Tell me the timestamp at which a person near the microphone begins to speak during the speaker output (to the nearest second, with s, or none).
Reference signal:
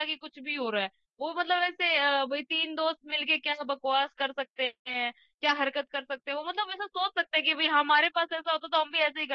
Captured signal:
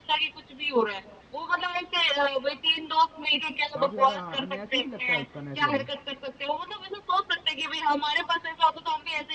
4 s